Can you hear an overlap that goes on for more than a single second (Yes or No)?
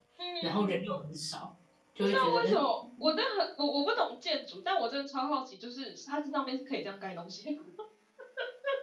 No